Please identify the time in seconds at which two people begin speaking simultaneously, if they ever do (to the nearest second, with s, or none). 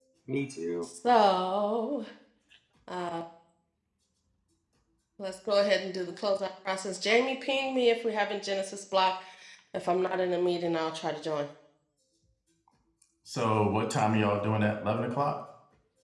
none